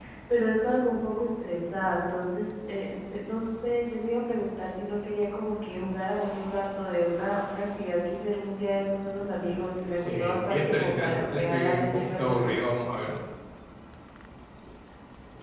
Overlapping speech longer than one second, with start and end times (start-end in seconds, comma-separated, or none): 10.0-12.5